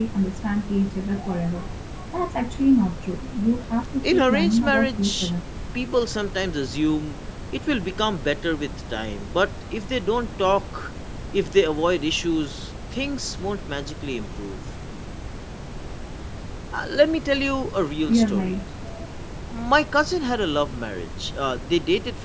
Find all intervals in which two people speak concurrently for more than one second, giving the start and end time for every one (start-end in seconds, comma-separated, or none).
4.0-5.3